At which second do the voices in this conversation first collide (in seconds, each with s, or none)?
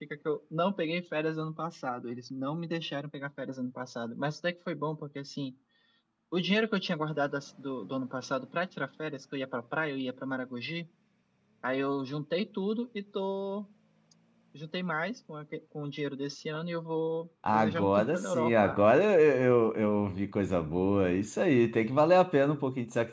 17.4 s